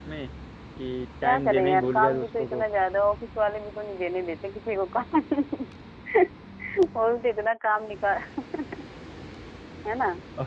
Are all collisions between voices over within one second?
No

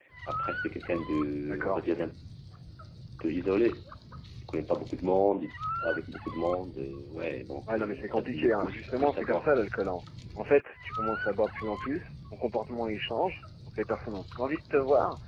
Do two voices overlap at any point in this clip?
Yes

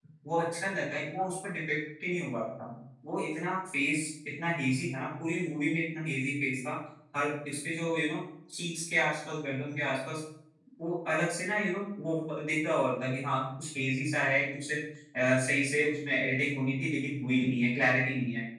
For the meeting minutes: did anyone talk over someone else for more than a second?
No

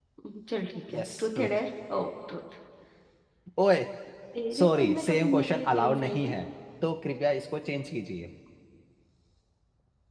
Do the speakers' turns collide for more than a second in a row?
Yes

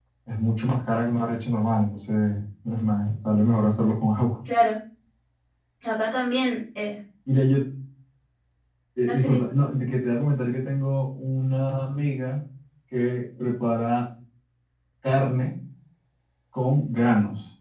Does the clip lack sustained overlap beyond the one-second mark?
Yes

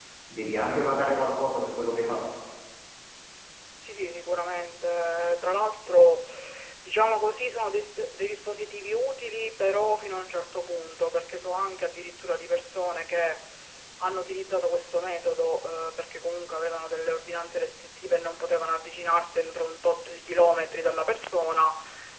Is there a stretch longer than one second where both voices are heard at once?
No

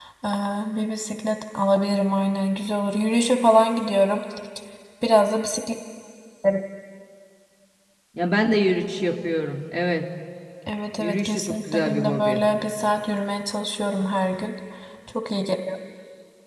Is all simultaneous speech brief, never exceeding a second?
No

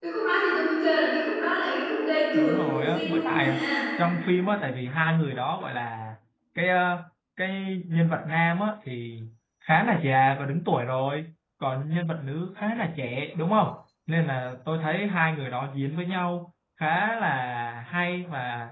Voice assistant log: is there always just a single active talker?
No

